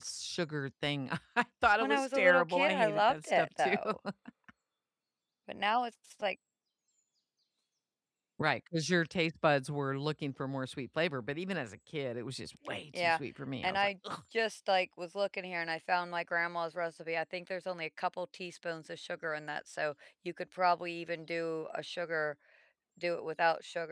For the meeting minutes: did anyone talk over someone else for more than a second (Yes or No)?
Yes